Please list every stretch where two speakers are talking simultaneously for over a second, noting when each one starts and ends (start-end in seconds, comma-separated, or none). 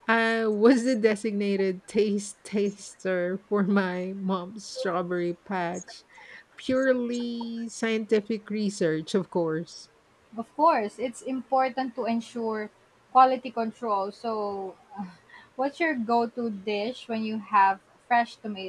none